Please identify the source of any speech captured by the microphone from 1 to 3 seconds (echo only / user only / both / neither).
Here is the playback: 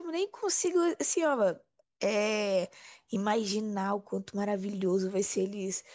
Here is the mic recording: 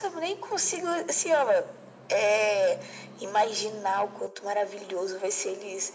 echo only